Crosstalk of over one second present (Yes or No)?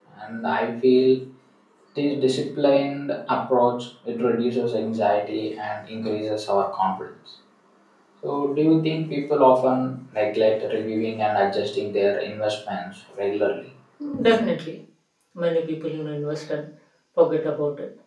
No